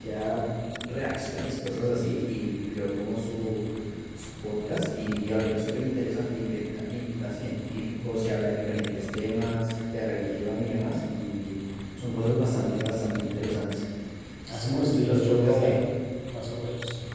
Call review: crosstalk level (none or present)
present